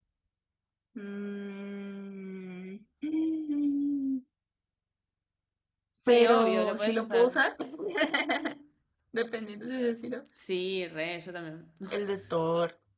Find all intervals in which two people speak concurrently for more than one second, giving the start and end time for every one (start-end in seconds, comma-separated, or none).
6.1-7.4